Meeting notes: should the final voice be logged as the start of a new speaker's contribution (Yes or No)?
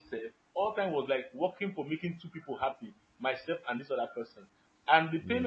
No